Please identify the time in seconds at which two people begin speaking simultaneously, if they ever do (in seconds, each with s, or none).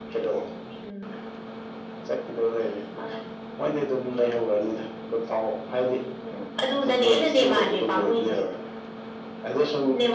6.9 s